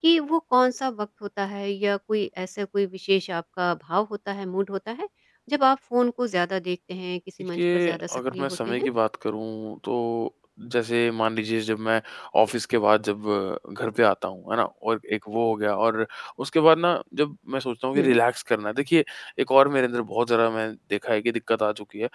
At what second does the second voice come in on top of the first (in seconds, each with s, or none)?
7.5 s